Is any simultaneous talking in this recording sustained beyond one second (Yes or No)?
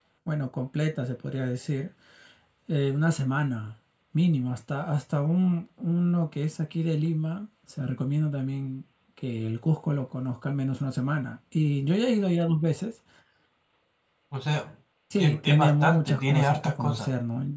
Yes